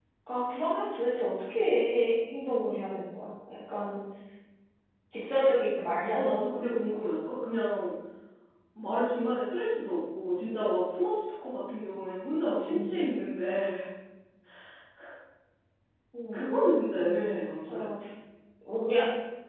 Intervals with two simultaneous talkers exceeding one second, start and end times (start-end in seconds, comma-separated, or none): none